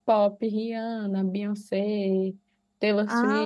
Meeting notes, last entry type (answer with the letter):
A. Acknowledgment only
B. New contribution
A